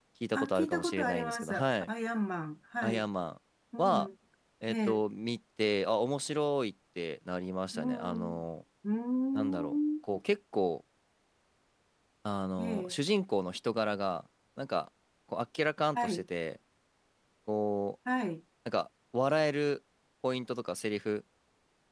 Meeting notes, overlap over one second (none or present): present